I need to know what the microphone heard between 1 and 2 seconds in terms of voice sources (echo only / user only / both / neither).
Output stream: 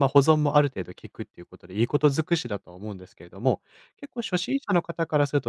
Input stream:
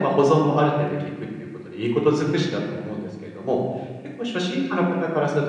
echo only